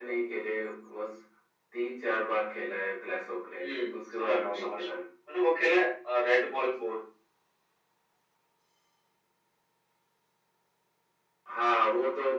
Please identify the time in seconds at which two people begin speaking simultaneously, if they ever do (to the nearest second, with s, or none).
4 s